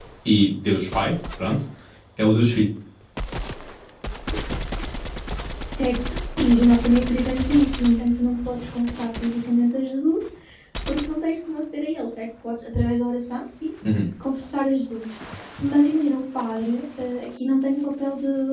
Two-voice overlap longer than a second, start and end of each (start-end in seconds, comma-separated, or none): none